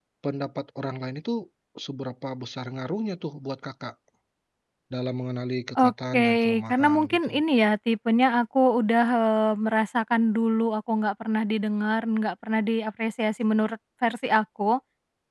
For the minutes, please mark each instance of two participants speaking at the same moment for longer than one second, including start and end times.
5.8-7.4

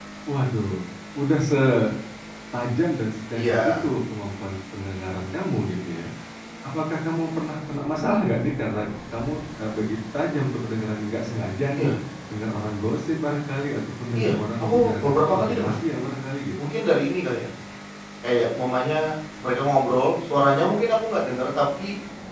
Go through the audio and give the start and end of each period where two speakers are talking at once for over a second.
14.2-15.8

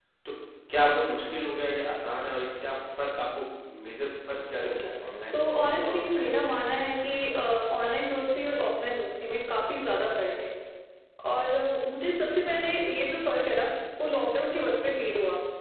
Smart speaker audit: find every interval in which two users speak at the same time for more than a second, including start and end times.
5.3-6.7

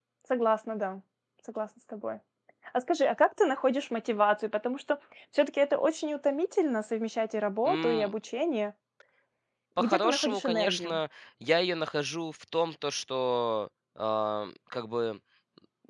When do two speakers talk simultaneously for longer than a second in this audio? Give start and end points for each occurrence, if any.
9.8-11.0

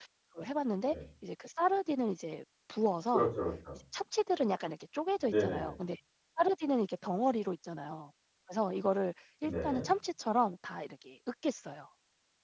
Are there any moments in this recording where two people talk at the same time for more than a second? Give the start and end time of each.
none

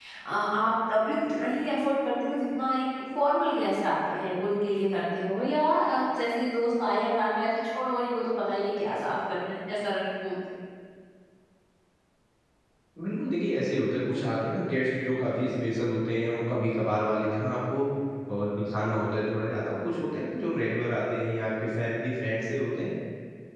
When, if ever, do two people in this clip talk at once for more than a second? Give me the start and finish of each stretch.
none

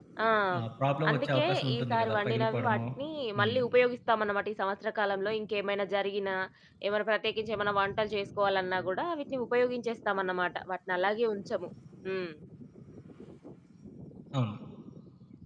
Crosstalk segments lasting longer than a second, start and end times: 1.1-2.8

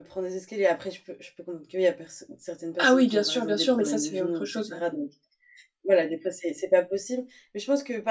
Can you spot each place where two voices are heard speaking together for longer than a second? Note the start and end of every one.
2.8-4.8

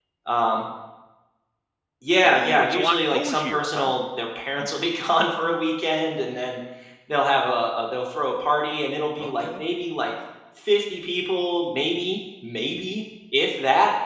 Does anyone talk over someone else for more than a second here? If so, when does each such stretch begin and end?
2.2-3.9

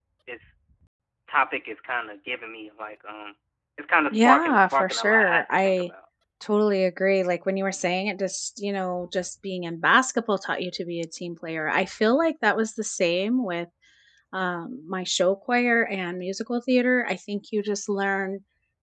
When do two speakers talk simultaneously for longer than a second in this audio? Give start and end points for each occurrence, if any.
4.1-5.9

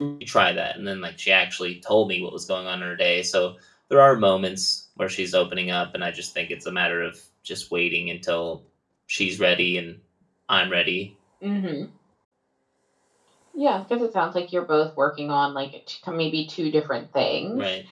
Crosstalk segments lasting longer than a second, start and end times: none

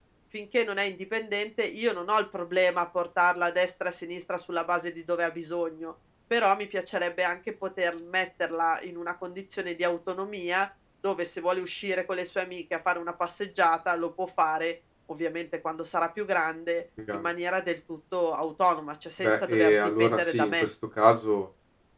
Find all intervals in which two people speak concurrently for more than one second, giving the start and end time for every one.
19.2-20.7

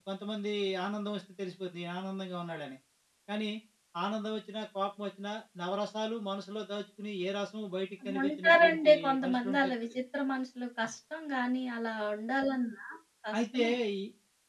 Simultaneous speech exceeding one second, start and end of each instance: 8.2-10.0

